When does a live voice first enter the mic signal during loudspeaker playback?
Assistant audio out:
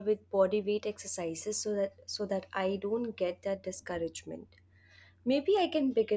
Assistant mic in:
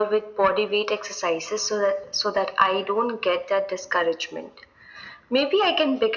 none

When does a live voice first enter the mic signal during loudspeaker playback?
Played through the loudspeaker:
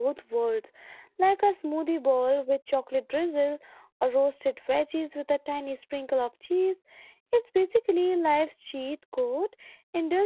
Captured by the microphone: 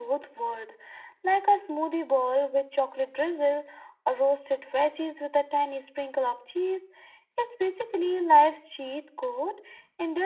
none

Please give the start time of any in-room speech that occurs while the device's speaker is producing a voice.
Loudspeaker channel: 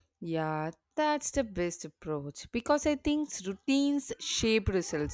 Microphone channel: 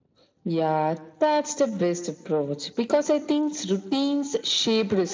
none

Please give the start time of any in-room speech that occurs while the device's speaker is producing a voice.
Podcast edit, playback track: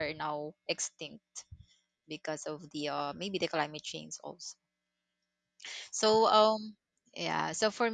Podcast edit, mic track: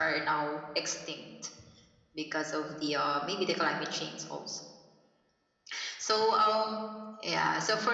none

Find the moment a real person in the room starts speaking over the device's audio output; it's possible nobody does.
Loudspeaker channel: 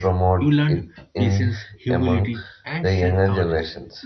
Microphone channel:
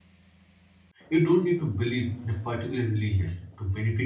1 s

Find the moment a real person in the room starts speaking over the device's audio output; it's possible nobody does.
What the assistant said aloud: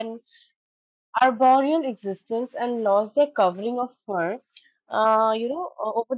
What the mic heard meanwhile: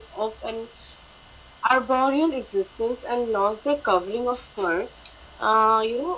none

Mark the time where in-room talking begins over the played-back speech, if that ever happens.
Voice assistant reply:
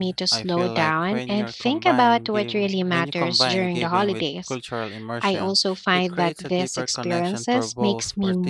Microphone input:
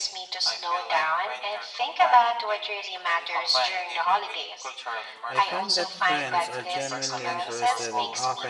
5 s

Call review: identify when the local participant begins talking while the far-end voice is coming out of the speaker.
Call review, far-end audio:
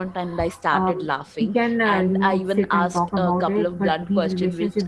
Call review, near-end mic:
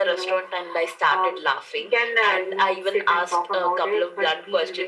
none

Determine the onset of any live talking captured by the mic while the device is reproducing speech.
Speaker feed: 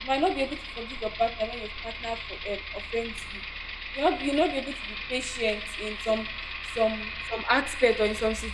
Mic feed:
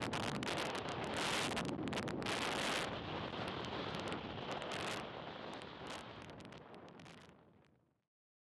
none

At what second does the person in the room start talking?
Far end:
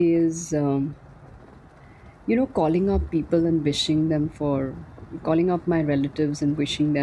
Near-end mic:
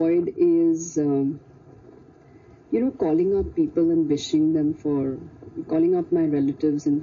none

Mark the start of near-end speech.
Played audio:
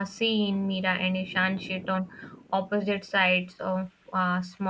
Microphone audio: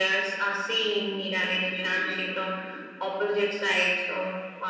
none

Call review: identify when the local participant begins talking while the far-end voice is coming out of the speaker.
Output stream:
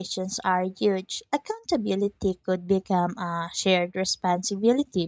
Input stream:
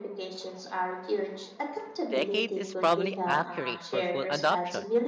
2 s

